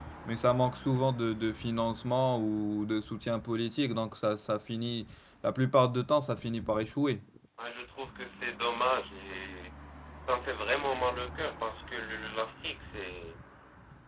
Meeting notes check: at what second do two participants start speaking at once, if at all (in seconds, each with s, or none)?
none